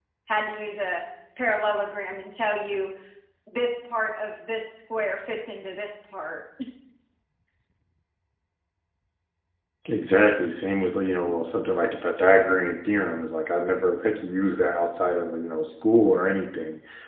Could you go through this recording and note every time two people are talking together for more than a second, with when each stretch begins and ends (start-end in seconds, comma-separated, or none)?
none